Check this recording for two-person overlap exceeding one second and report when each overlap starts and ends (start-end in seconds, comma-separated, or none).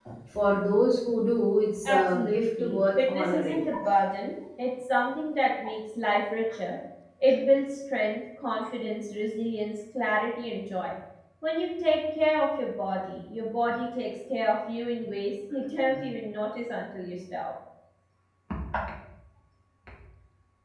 1.8-3.7